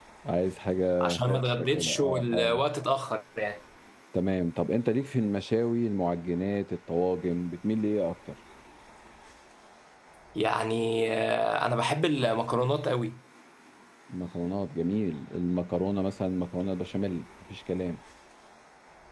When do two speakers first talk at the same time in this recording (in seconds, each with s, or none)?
1.0 s